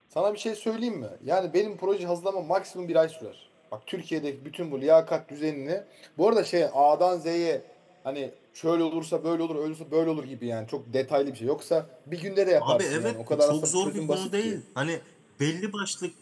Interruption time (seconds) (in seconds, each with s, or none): 12.6 s